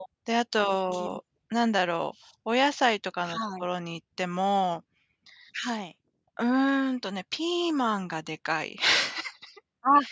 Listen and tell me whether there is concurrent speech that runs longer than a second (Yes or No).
No